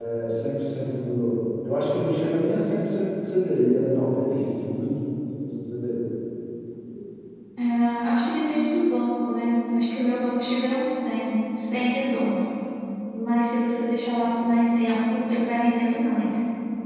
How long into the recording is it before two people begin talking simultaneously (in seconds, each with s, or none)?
none